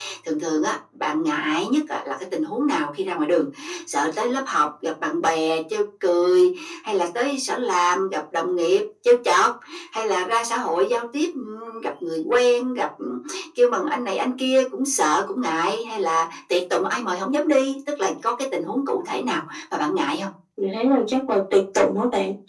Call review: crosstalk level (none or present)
none